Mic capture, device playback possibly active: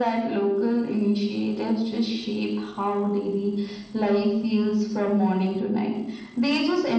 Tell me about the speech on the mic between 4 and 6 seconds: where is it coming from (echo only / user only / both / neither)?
echo only